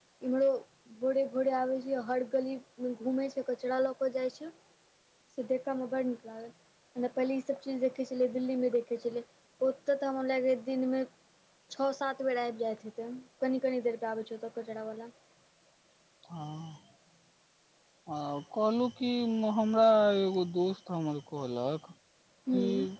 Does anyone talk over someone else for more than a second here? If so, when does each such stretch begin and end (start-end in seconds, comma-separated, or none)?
none